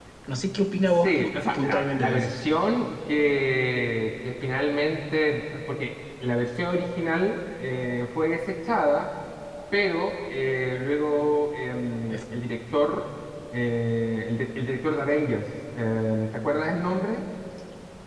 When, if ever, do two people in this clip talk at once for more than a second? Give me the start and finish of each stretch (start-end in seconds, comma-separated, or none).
1.0-2.3